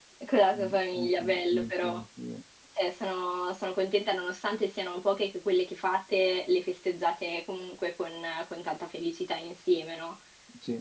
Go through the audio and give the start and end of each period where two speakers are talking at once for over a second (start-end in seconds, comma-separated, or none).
0.5-2.0